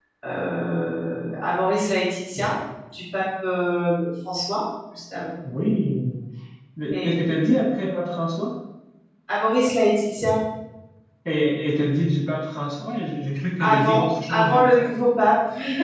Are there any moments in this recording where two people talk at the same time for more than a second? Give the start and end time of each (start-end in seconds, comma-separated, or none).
13.6-14.9